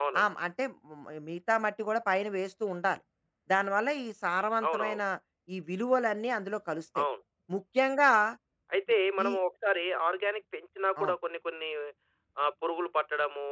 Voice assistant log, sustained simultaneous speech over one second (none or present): none